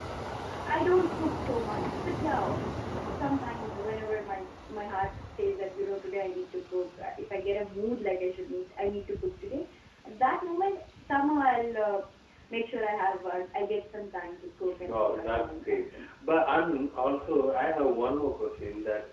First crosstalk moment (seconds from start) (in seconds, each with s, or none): 14.7 s